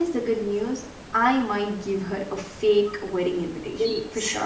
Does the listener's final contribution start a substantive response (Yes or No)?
Yes